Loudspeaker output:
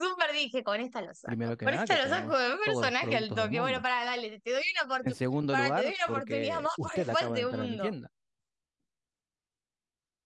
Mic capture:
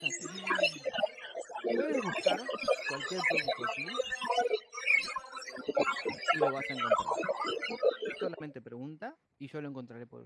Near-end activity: present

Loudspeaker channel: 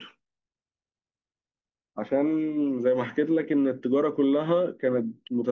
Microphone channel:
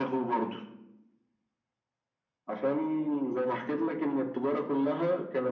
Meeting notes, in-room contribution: none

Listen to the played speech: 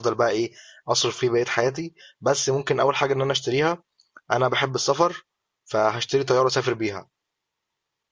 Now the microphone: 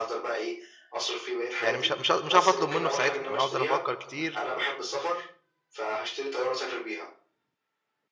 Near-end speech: present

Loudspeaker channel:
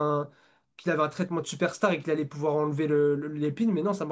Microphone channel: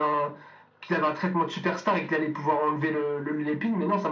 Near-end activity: none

